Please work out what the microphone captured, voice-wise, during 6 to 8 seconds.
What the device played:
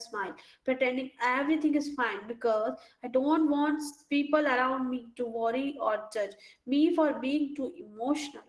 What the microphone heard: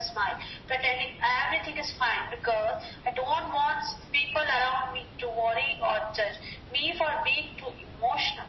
echo only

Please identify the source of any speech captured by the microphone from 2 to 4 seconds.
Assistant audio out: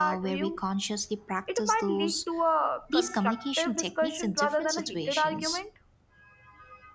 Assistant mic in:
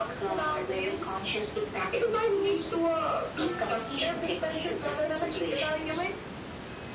echo only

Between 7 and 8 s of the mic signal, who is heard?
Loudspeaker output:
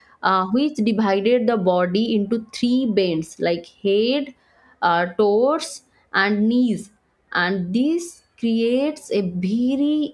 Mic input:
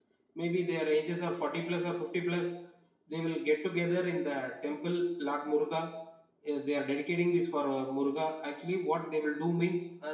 user only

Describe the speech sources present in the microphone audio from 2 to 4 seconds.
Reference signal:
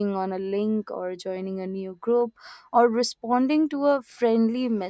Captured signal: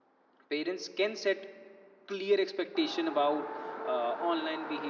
user only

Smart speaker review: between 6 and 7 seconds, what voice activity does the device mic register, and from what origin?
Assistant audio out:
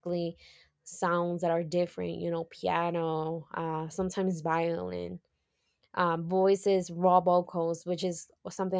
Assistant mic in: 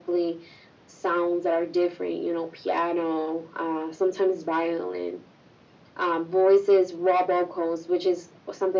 echo only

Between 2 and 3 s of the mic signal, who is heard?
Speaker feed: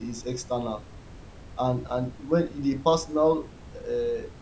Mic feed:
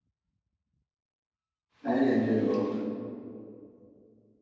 user only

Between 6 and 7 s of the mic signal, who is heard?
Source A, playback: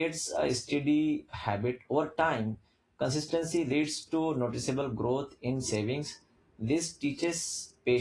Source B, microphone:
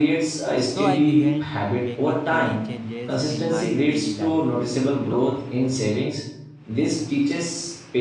echo only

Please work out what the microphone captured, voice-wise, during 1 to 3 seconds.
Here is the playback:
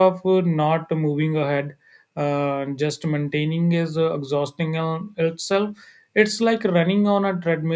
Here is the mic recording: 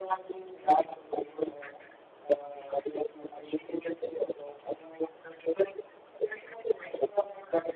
echo only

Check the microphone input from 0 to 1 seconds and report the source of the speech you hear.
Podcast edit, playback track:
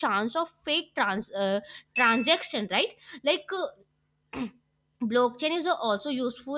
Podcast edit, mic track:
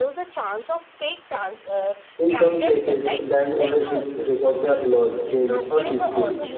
echo only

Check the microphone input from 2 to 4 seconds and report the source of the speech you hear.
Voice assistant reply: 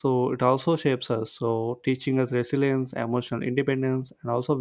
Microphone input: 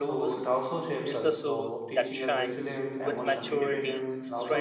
both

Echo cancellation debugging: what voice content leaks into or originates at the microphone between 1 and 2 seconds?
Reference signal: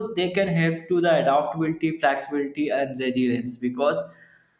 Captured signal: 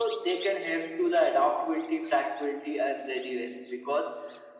echo only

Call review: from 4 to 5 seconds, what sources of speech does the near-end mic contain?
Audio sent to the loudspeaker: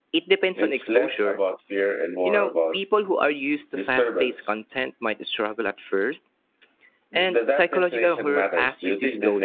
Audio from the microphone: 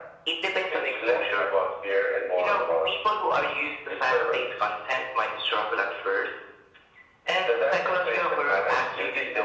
echo only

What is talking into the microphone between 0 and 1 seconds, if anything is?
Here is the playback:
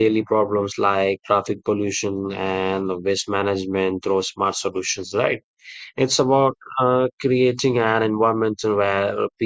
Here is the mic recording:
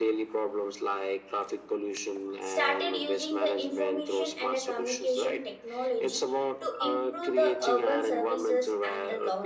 echo only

